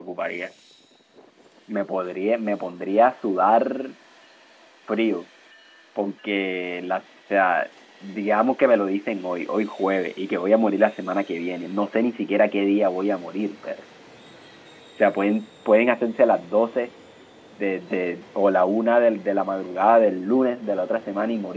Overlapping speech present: No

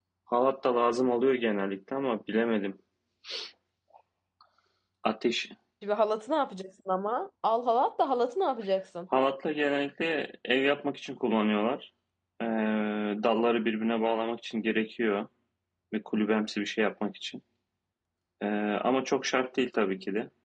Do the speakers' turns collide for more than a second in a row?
No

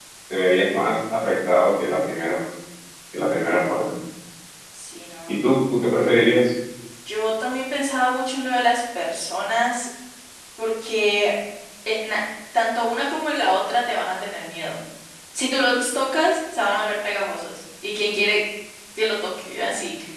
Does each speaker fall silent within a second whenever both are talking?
Yes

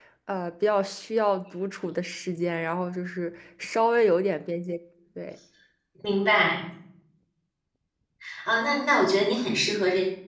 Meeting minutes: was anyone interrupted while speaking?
No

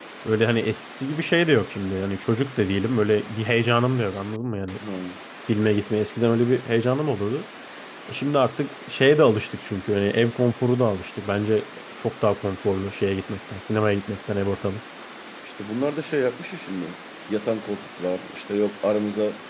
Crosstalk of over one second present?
No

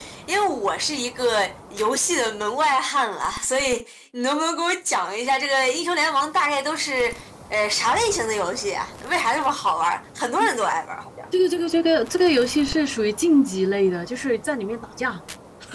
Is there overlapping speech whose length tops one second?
No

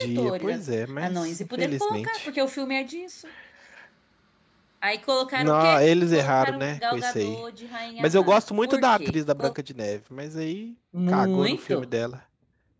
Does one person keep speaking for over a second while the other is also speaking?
Yes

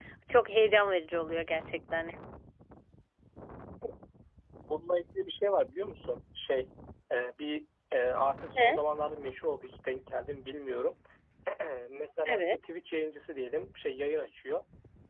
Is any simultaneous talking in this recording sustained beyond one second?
No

